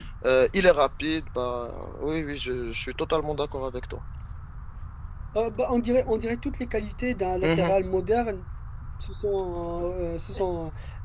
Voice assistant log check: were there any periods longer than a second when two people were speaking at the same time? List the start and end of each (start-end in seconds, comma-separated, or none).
none